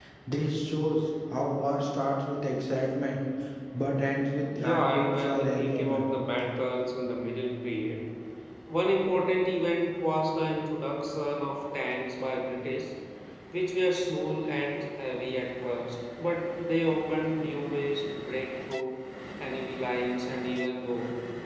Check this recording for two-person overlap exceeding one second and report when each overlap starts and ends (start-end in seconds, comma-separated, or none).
4.5-6.1